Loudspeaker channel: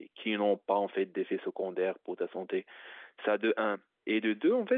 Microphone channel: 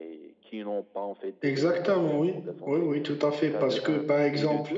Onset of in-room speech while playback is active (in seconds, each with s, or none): 1.4 s